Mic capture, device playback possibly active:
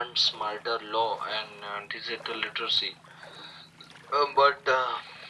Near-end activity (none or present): none